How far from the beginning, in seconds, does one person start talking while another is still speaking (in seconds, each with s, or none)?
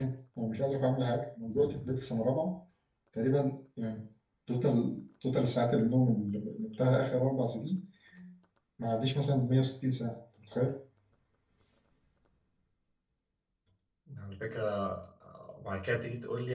none